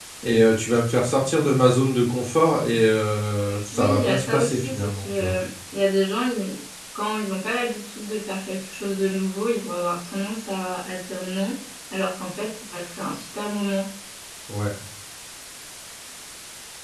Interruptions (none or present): present